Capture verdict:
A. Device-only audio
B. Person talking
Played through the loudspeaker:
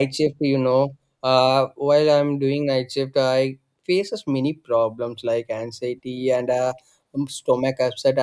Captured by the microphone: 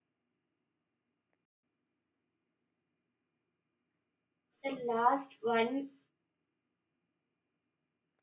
B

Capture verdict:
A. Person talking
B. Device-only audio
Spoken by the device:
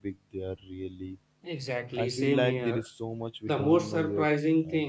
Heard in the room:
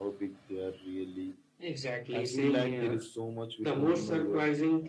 B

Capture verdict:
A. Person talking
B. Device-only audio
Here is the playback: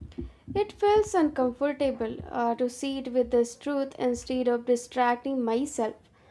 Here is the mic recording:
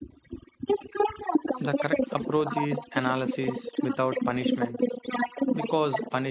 A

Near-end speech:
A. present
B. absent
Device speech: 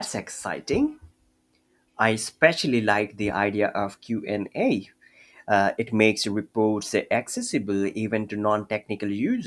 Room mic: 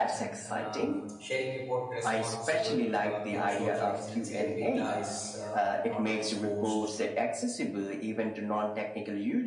A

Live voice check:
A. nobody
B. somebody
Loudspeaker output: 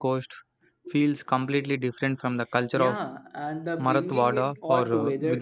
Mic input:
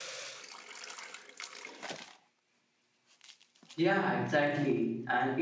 B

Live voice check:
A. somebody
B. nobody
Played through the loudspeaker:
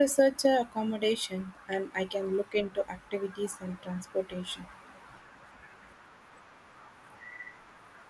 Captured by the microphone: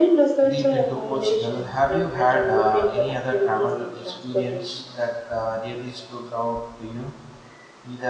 A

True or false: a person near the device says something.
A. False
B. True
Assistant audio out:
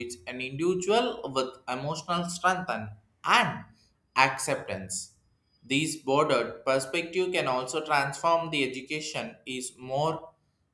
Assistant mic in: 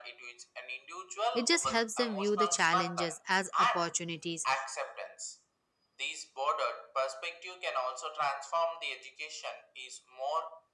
B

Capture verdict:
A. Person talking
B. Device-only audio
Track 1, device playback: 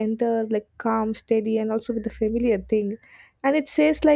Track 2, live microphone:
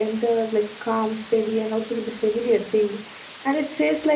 B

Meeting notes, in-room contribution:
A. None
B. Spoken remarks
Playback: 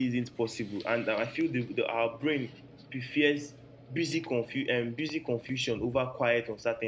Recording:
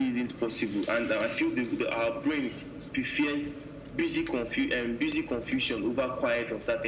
A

